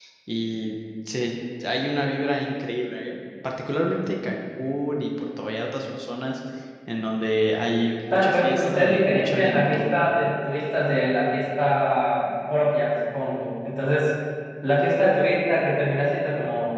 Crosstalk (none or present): present